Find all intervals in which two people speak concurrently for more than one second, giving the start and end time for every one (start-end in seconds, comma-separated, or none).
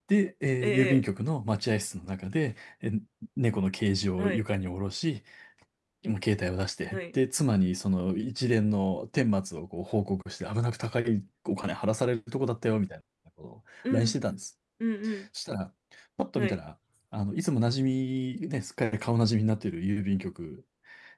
none